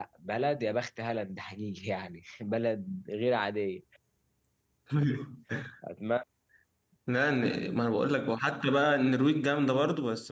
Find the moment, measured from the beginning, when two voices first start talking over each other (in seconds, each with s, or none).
none